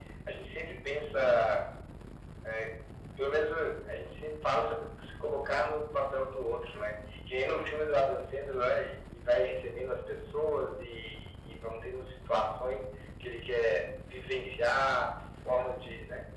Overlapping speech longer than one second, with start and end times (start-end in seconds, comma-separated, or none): none